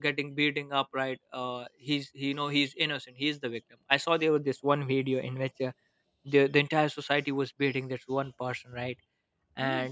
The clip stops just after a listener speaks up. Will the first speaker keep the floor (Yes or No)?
Yes